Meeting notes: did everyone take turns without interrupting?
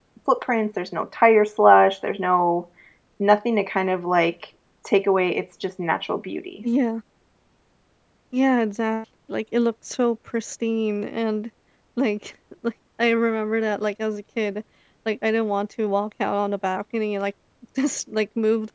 Yes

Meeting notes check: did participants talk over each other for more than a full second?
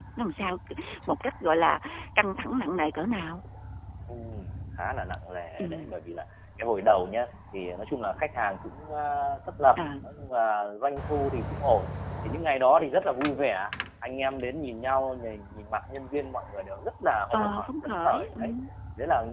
Yes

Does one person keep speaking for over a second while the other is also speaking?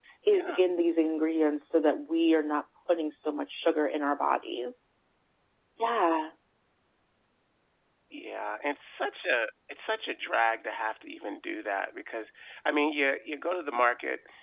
No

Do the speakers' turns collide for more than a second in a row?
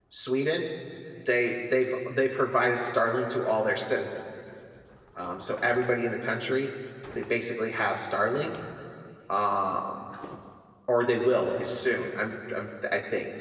No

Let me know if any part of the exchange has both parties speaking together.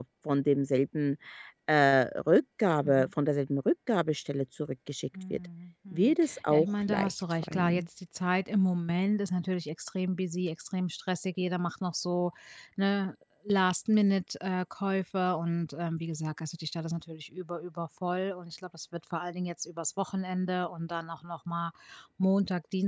Yes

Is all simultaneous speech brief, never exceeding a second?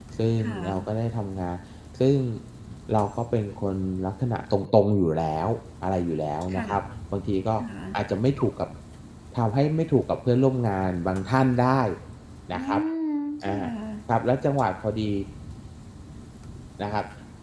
Yes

